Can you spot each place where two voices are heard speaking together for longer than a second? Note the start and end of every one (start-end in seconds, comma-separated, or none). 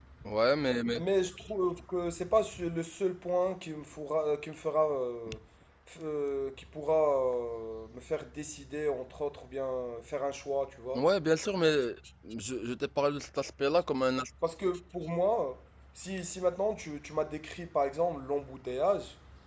none